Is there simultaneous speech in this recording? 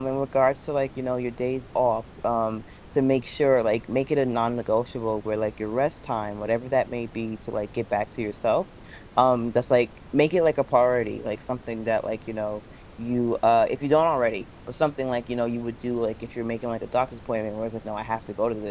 No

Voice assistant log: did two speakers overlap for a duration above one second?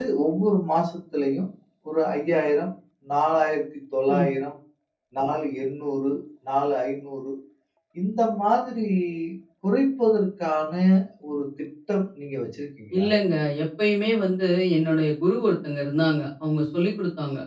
No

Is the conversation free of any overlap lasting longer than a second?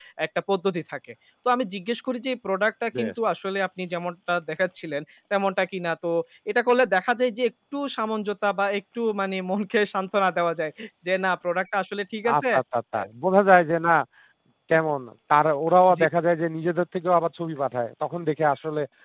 Yes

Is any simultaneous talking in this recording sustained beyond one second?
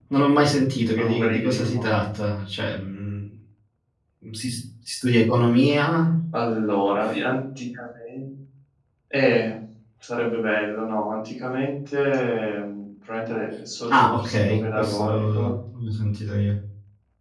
Yes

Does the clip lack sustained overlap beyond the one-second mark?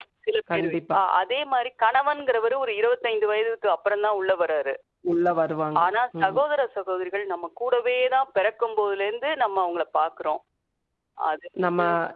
Yes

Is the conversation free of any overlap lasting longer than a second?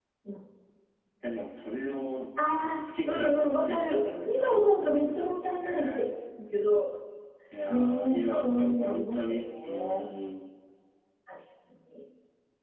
No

